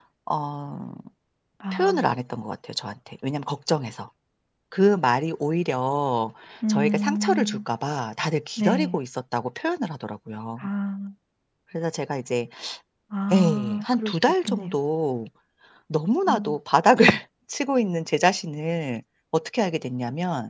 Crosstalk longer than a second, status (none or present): present